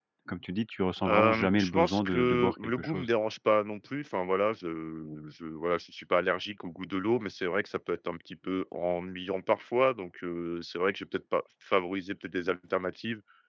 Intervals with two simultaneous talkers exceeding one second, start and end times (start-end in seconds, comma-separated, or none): 1.1-3.1